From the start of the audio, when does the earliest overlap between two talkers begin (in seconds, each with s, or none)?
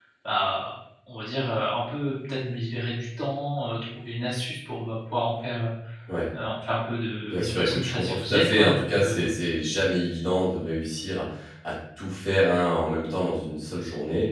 7.3 s